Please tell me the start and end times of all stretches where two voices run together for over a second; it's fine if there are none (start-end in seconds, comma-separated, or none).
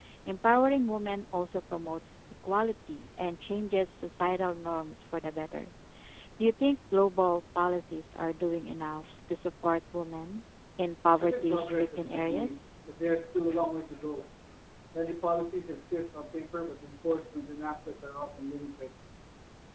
11.2-12.7